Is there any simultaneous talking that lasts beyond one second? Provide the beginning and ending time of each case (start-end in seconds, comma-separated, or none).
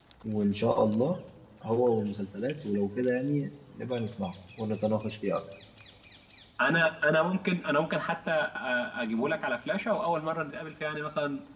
none